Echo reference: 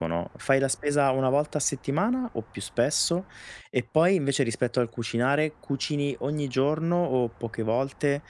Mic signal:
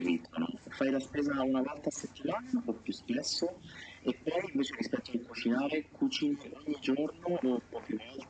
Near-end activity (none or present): none